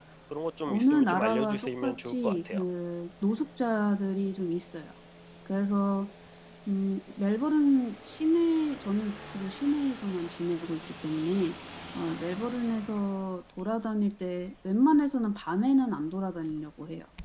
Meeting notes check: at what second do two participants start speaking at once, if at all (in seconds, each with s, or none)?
0.7 s